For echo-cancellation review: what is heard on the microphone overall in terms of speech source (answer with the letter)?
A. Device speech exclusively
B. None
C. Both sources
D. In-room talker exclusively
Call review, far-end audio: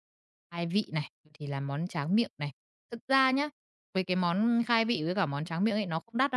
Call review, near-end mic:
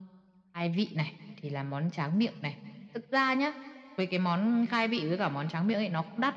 A